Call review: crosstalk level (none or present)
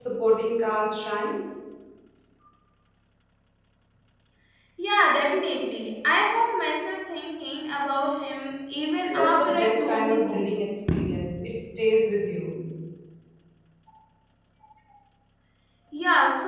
present